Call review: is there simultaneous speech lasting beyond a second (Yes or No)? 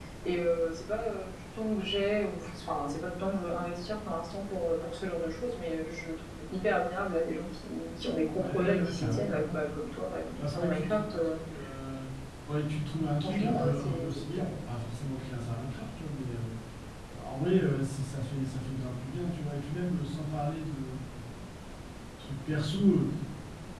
Yes